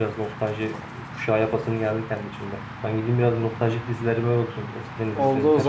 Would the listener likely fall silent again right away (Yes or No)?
No